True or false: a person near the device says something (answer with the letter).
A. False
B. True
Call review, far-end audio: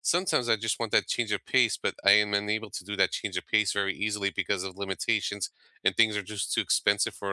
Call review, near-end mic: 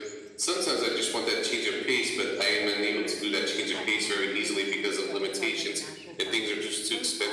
B